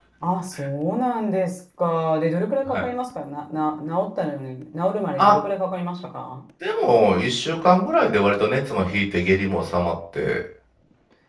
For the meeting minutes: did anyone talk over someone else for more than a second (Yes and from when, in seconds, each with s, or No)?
No